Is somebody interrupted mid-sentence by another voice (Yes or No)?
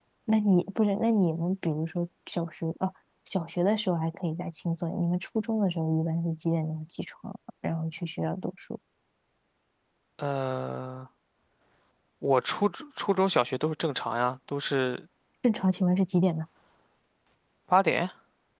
No